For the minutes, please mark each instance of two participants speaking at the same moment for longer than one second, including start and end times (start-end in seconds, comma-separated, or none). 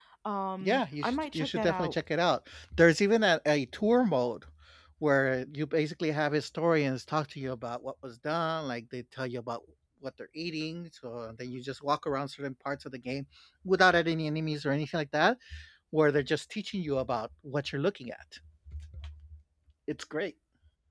0.6-1.9